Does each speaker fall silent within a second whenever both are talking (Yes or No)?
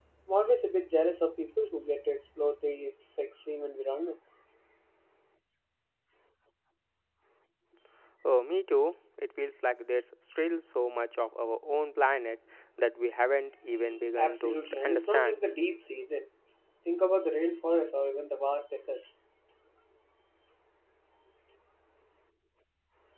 No